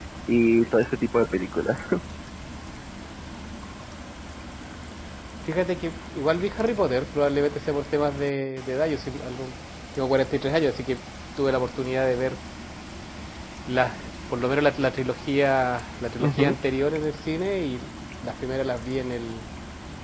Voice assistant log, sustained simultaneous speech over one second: none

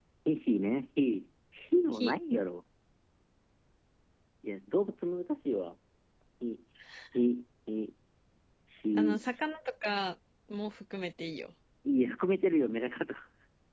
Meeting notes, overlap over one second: none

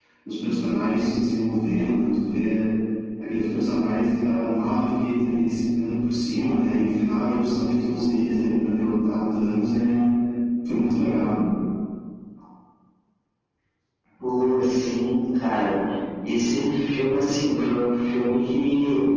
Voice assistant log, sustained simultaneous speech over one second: none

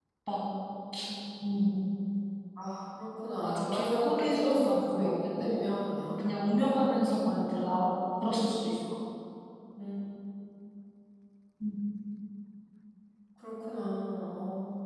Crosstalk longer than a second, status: present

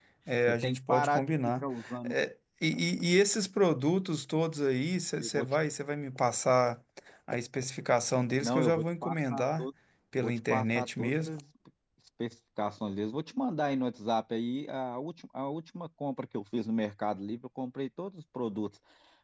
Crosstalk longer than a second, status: present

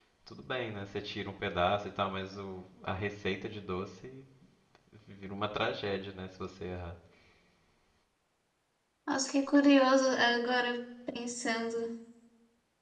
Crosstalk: none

